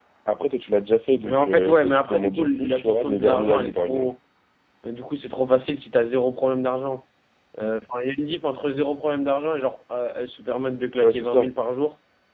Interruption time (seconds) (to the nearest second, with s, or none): 1 s